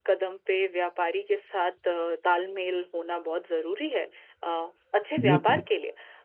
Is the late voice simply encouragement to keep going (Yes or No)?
Yes